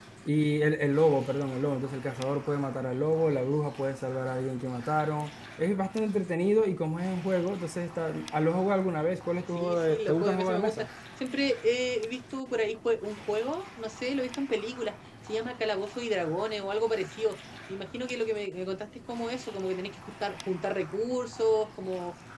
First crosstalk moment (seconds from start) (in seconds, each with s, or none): 9.6 s